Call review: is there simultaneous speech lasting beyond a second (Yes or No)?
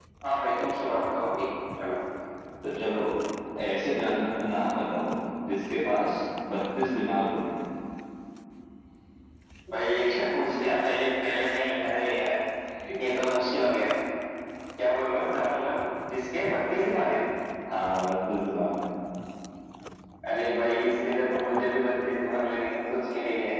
No